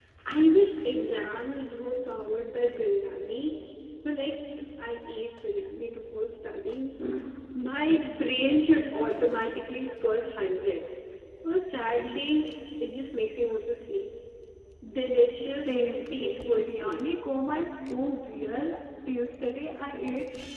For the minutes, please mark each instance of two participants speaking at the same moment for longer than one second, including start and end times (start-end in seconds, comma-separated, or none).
15.4-17.0